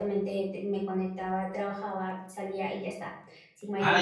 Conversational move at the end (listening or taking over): taking over